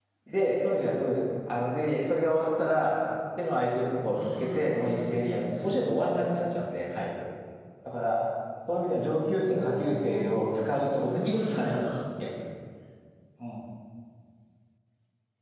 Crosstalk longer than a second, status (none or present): present